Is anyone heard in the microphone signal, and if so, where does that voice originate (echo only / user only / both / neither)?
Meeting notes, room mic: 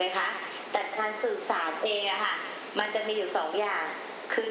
echo only